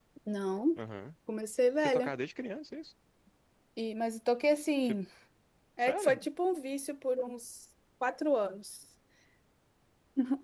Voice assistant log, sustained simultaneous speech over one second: none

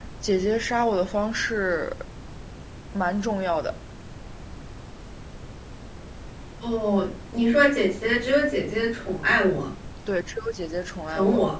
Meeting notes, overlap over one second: none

